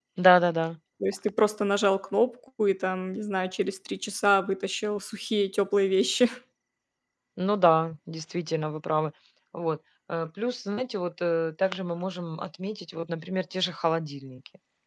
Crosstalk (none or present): none